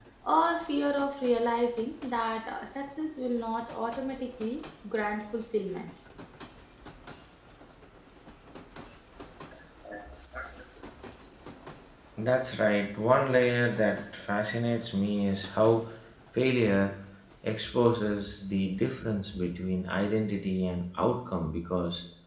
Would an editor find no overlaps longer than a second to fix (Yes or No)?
Yes